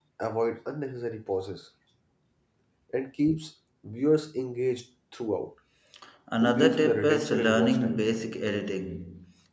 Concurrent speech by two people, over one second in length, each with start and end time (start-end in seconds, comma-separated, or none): 6.4-8.0